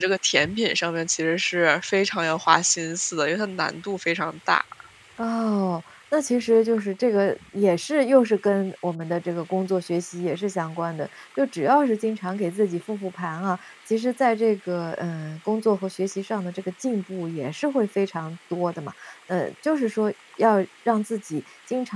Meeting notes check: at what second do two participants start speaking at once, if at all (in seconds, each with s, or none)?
none